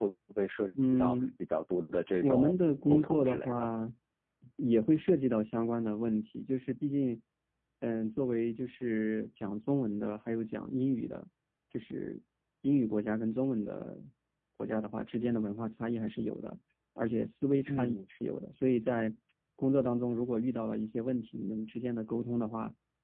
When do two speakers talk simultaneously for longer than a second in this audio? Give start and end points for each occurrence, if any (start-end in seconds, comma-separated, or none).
2.2-3.6